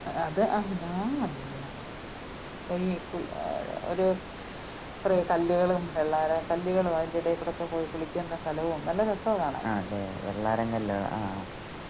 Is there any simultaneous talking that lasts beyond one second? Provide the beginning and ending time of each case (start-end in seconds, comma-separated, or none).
none